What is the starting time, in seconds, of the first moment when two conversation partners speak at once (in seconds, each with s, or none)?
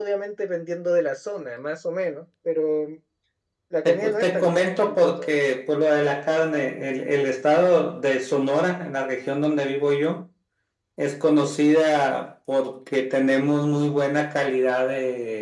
3.9 s